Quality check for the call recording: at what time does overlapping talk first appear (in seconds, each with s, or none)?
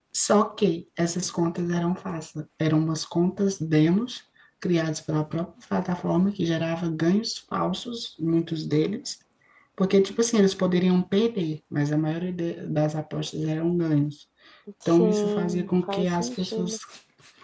14.8 s